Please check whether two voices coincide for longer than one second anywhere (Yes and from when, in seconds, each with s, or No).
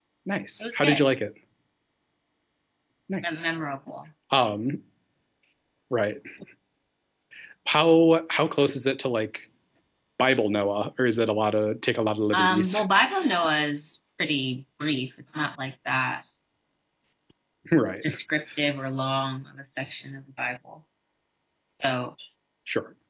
No